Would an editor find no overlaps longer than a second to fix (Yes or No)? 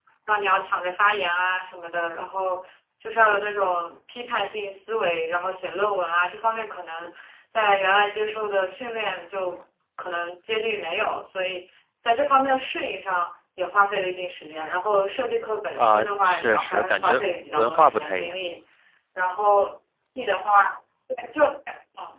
No